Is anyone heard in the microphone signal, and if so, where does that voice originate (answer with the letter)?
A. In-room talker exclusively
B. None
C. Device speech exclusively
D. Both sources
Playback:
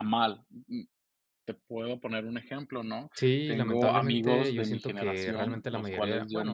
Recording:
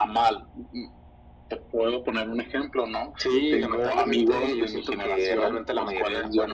C